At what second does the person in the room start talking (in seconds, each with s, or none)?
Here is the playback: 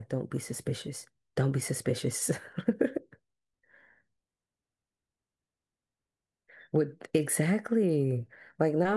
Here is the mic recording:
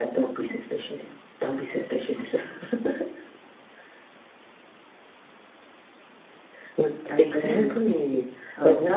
7.1 s